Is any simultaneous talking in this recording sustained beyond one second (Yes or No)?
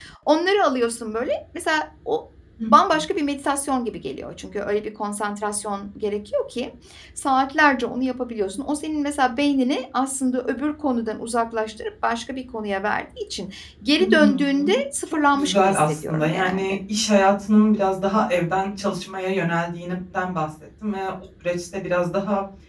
Yes